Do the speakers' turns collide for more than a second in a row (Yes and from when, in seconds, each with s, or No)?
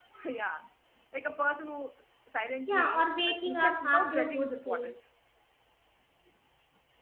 Yes, from 2.7 s